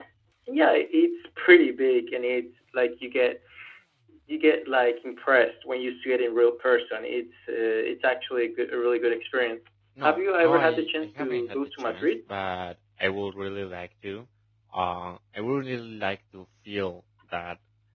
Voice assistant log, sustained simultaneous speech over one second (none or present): present